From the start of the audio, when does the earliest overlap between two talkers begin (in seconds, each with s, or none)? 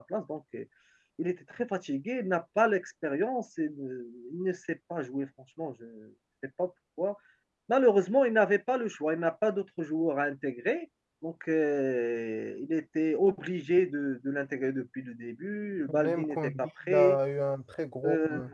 16.0 s